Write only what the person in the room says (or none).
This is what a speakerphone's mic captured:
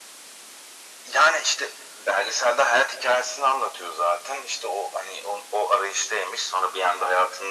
none